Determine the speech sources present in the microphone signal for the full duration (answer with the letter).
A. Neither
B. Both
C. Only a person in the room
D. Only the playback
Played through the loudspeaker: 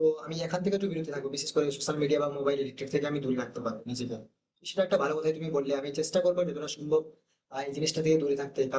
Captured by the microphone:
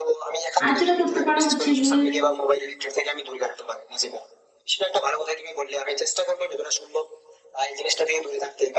B